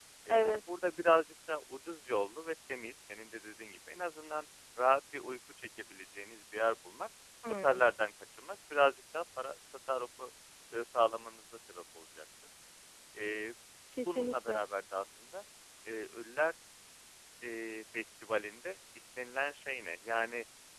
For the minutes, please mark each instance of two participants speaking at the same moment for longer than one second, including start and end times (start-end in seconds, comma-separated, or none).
none